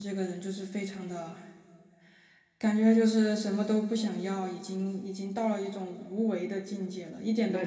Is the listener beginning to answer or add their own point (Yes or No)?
Yes